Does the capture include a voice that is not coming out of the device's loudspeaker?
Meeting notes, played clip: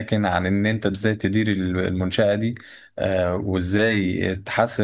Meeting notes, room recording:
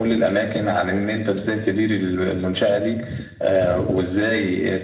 No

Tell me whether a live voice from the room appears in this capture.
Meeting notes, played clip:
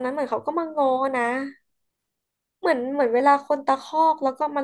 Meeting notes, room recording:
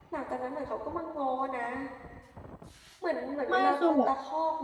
Yes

